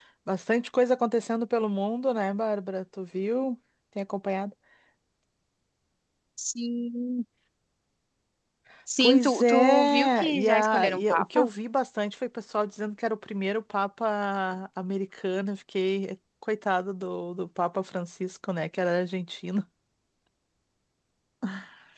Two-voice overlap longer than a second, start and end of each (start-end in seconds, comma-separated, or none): 9.0-11.5